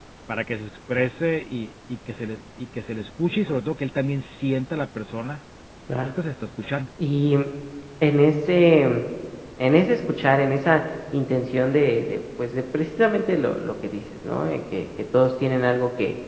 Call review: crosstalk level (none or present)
none